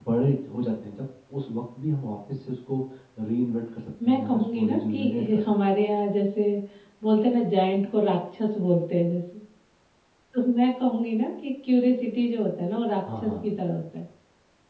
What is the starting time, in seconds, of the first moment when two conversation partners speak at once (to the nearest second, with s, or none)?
4 s